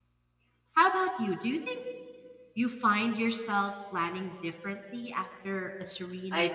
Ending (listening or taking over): taking over